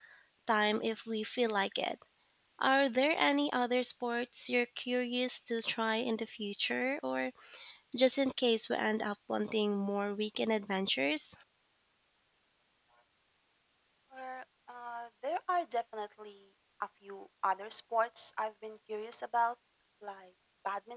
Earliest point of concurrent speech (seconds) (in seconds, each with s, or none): none